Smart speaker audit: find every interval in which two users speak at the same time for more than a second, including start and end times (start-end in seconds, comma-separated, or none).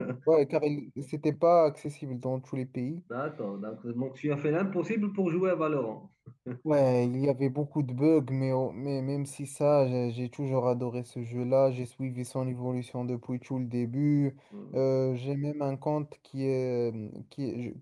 none